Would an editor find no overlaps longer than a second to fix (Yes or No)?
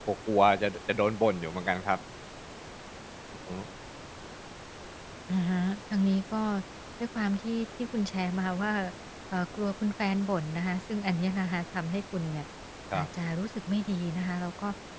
Yes